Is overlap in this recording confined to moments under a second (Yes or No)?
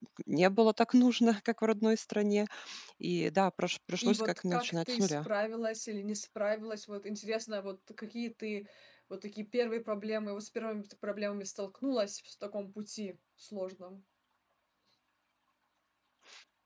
No